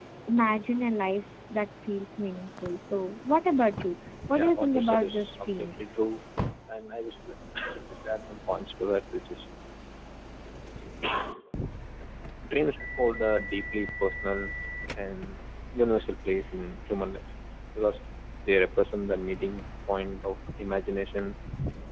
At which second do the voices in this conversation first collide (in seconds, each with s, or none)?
4.2 s